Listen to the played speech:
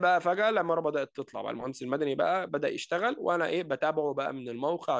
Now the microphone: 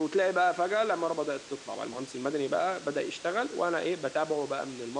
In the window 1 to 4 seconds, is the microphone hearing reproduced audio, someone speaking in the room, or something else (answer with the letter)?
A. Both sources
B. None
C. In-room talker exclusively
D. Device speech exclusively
D